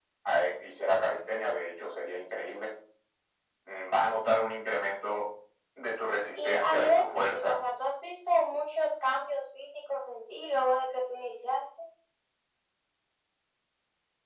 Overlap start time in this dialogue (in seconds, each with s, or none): 6.3 s